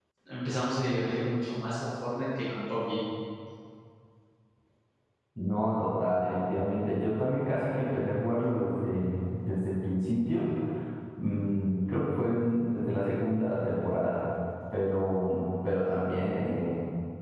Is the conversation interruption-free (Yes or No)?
Yes